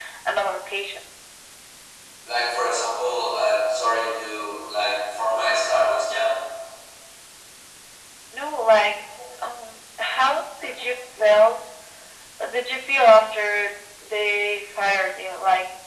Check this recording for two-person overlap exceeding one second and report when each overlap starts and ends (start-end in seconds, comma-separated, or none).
none